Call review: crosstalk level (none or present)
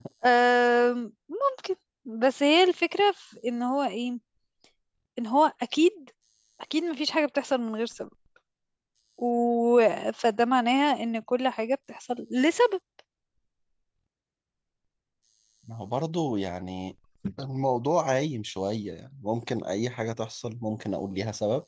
none